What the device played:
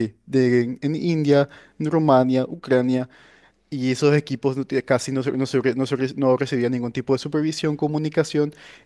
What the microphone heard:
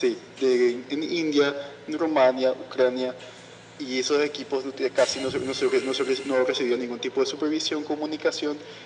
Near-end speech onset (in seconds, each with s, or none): none